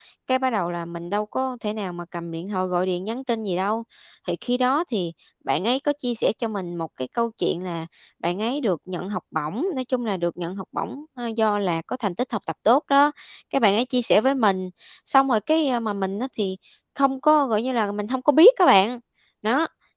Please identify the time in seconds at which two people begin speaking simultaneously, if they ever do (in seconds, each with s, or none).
none